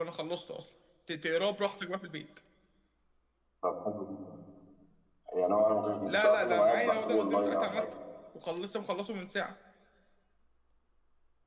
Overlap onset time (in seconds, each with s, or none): 6.1 s